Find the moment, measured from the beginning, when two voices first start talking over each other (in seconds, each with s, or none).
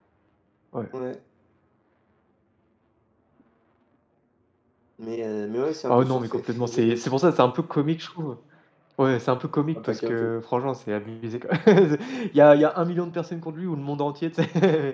5.9 s